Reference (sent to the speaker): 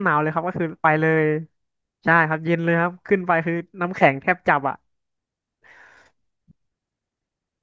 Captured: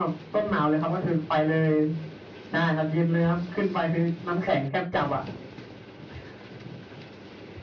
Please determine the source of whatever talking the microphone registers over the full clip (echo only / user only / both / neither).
echo only